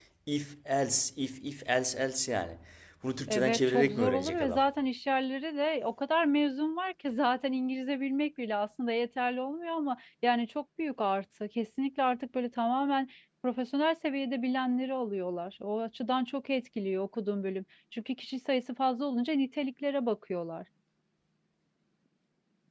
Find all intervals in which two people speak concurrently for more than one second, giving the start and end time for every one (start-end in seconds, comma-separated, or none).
3.3-4.6